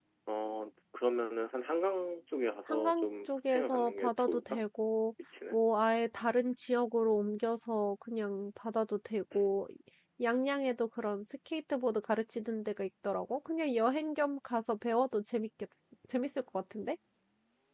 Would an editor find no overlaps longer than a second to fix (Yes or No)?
No